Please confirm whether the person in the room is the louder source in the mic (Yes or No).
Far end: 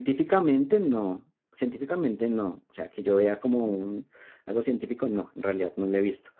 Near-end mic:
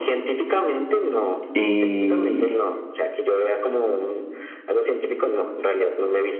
Yes